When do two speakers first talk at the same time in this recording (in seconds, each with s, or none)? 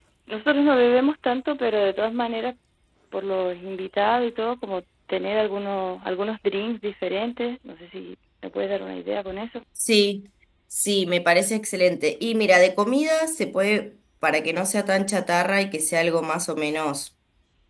none